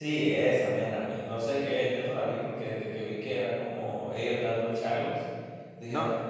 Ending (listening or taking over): listening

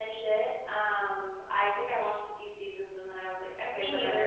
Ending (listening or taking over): listening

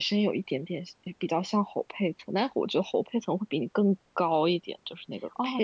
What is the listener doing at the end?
taking over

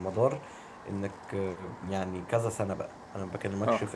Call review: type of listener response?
listening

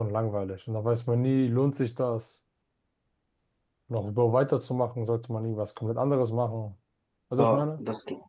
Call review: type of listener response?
taking over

